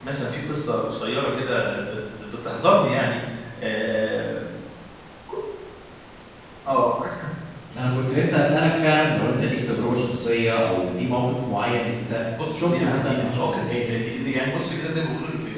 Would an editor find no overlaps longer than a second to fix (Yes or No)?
No